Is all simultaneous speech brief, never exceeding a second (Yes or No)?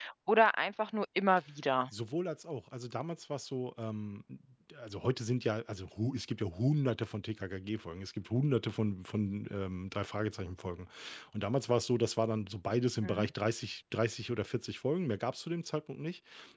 Yes